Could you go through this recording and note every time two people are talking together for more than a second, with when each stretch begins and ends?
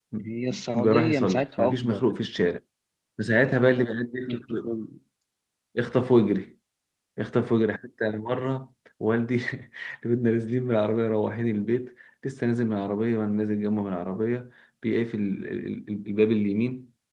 0.5-2.0

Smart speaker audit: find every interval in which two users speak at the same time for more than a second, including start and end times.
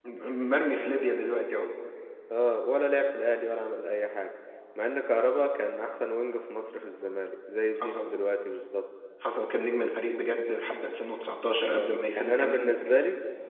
11.7-12.9

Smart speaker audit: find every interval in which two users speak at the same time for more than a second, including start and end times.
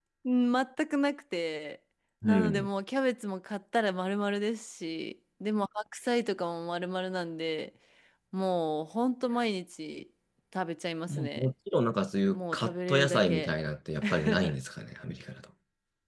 12.3-13.5

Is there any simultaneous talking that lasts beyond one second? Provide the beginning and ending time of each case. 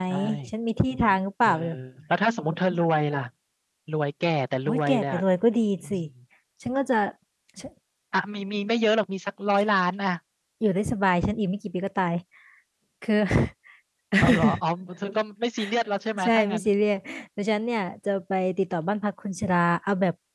none

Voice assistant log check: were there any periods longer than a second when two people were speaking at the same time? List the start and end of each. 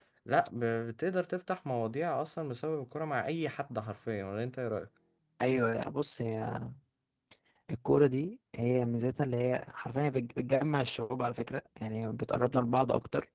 none

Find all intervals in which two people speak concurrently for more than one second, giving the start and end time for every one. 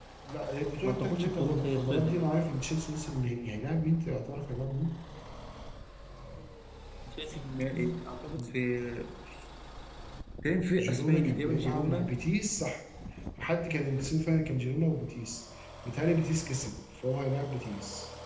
0.8-2.2, 10.8-12.1

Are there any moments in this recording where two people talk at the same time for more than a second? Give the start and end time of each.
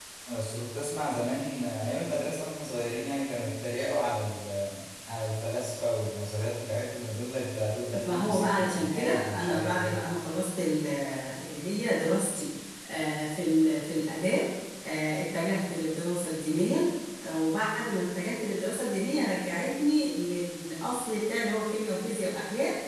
8.0-10.0

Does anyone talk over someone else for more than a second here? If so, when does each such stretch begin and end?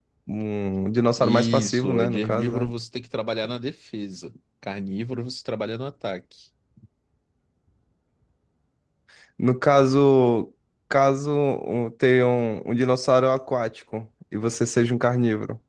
1.2-2.7

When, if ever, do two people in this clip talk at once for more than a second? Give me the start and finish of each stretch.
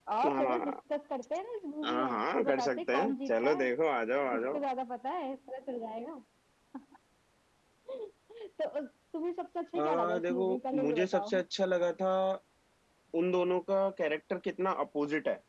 1.8-3.7, 9.8-11.3

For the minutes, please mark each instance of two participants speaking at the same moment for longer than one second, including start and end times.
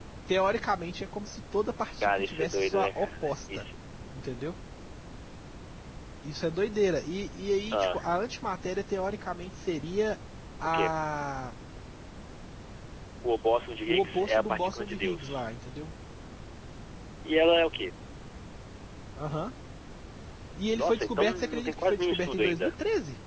2.0-3.6, 13.9-15.4, 20.8-22.7

